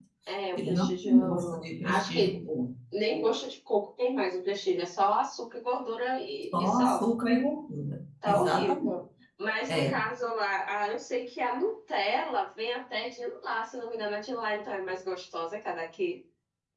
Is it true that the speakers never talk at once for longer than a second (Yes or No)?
No